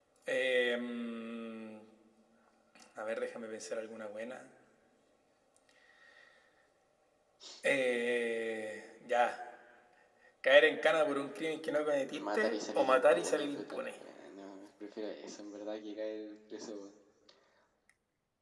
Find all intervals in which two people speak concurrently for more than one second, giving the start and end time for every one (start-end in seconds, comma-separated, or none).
12.2-13.8